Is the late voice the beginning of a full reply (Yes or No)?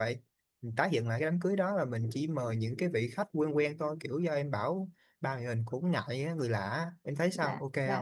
Yes